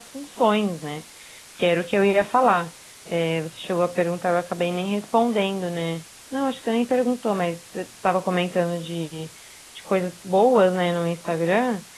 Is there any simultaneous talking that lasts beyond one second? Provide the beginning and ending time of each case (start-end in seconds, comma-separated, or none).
none